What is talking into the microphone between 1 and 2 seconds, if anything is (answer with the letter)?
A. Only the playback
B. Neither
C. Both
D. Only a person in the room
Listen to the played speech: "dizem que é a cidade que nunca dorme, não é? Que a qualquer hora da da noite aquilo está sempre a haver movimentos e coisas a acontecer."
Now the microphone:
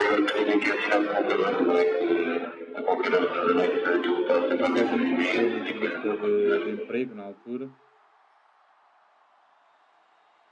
A